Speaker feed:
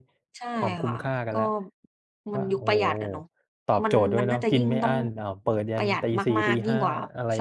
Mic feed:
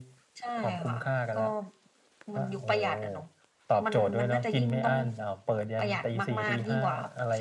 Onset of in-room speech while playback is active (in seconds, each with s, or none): none